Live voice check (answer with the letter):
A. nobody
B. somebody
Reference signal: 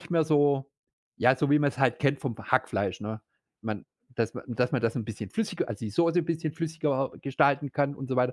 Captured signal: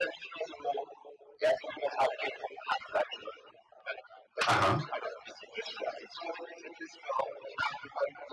B